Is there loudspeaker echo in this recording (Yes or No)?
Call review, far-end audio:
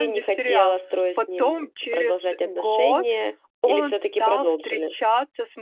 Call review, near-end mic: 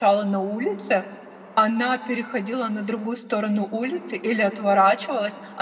No